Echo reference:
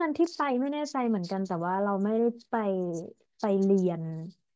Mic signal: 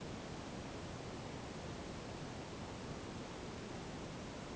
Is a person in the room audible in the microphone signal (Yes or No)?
No